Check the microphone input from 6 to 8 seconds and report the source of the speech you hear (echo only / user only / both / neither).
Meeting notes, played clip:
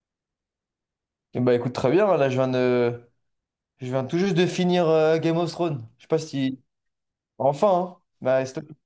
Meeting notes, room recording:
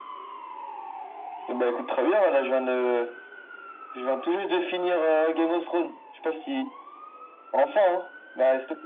echo only